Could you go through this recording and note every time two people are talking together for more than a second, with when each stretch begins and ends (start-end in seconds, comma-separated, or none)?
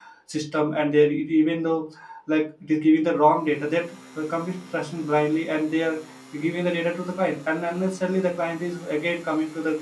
none